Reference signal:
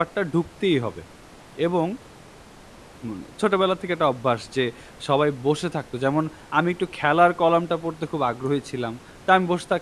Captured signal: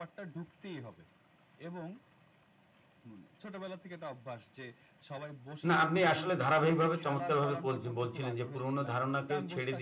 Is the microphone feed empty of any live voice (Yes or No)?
No